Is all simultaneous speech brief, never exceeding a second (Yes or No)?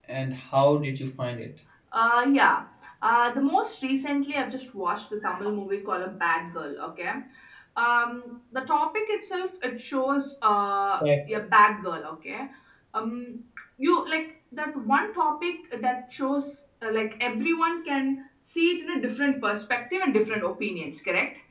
Yes